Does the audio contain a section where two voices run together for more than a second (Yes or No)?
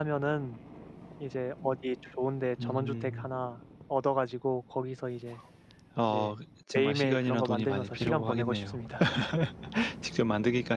Yes